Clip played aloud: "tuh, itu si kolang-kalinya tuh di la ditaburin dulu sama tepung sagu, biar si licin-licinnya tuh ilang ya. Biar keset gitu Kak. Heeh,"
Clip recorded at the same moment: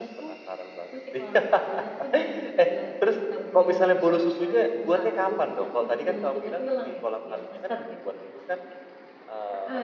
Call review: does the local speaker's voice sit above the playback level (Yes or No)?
Yes